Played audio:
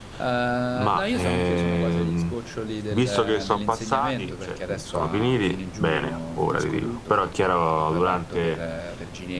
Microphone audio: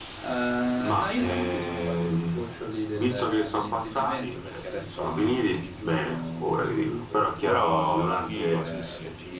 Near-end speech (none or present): present